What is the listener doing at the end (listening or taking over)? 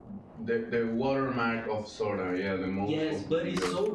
taking over